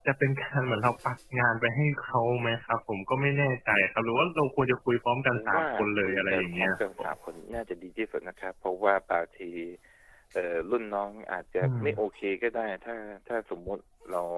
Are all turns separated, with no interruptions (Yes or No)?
No